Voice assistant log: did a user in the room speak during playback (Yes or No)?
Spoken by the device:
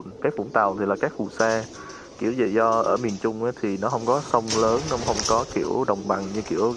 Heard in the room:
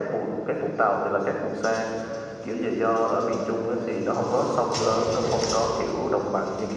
No